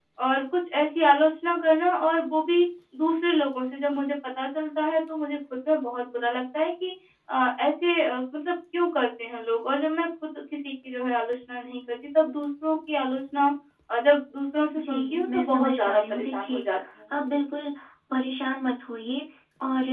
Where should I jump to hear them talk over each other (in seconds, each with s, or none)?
14.8 s